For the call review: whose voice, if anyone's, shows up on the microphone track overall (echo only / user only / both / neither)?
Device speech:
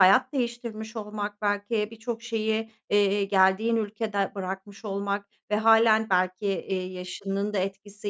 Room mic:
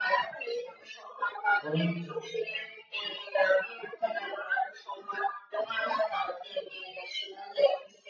both